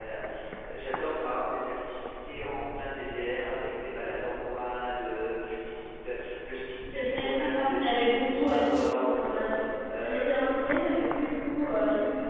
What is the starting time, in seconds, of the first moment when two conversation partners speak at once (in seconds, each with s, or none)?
6.9 s